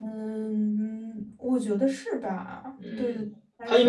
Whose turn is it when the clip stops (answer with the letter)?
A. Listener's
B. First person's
A